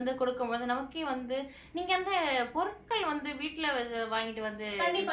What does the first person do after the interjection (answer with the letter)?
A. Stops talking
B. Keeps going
A